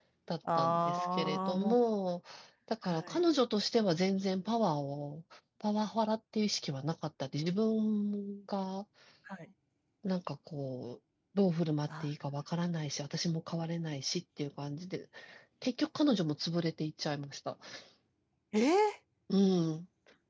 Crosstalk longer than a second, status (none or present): present